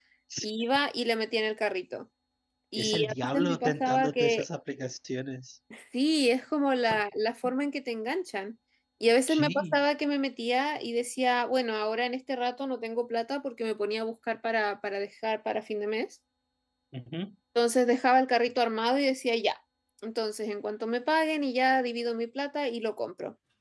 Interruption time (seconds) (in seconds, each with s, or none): 2.8 s